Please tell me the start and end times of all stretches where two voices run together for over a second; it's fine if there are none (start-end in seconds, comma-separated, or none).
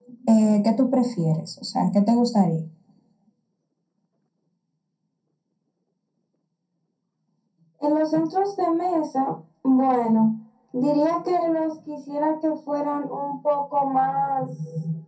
none